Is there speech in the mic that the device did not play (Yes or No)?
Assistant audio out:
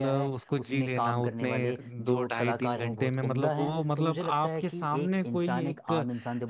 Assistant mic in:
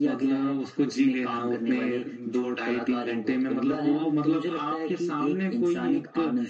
No